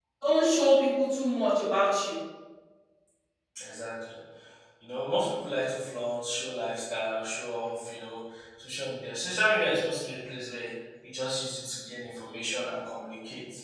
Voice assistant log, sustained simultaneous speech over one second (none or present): none